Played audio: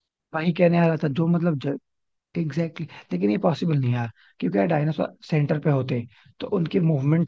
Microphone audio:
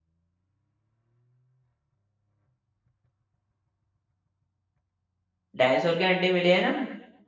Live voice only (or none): डायनासोर के अंडे मिले हैं ना